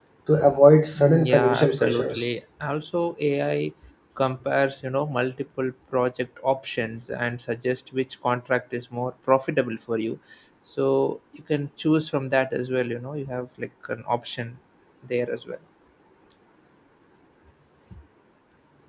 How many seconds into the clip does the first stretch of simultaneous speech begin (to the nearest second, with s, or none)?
1 s